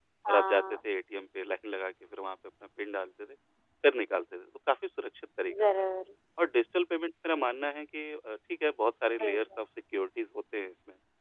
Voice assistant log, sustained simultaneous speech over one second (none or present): none